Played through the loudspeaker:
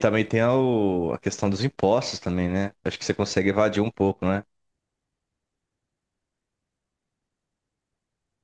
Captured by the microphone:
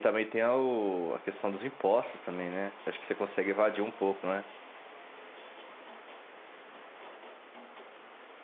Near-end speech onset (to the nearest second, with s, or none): none